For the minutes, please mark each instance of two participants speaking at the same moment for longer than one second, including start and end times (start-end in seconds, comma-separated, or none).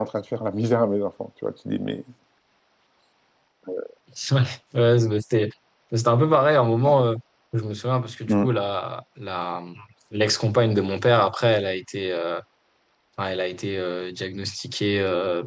none